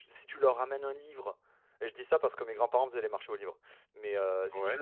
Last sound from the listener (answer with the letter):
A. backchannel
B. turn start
A